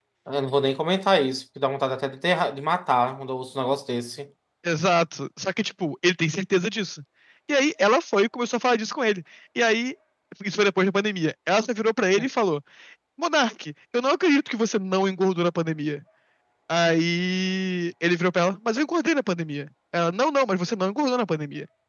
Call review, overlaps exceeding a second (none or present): none